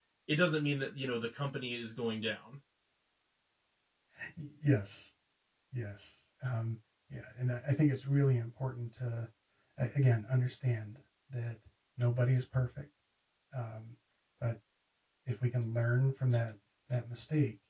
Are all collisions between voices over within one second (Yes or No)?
Yes